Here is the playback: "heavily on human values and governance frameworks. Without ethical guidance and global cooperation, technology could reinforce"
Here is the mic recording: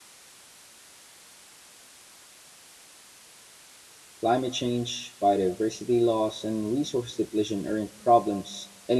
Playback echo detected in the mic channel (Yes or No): No